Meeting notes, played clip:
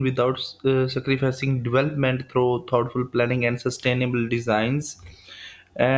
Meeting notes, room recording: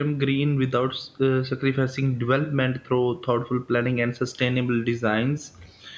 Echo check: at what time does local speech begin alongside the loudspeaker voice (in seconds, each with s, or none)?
none